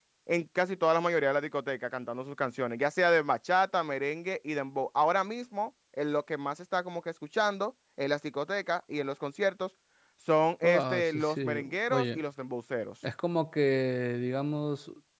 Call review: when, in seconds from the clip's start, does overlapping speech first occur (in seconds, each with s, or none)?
10.6 s